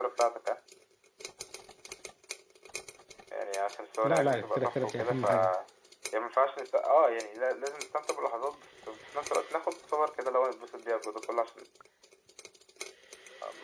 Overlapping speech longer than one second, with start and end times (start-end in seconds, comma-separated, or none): 4.0-5.5